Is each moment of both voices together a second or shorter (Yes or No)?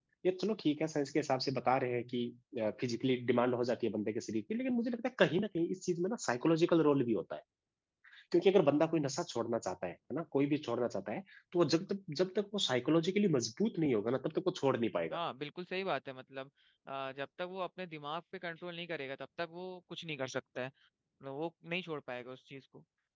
Yes